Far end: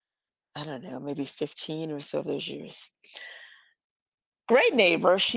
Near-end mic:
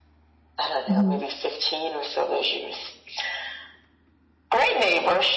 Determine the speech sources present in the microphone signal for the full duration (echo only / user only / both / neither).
both